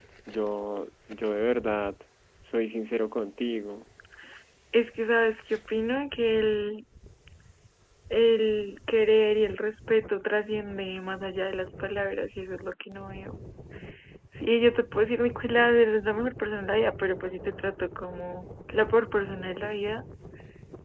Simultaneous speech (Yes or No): No